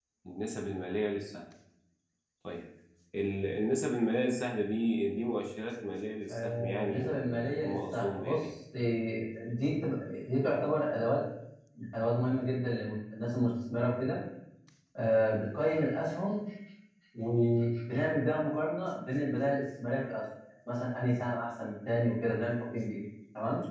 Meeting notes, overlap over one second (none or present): present